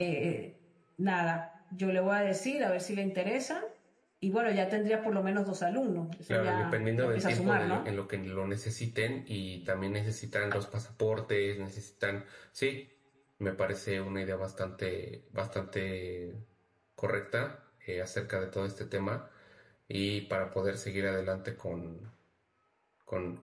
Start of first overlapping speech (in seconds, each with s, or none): 6.3 s